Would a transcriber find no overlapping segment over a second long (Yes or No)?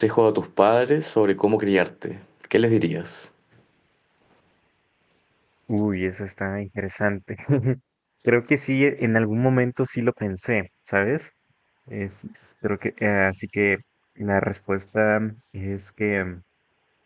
Yes